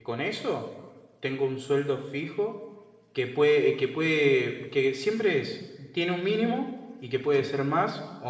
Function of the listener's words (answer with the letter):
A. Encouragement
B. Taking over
A